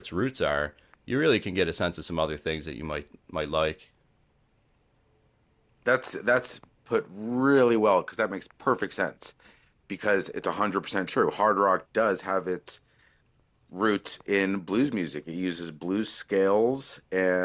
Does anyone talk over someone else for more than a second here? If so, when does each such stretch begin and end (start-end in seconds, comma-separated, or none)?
none